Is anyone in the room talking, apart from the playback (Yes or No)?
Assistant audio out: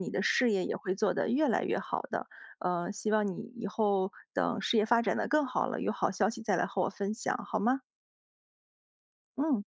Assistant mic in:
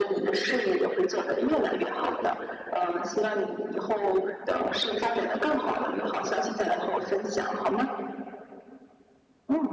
No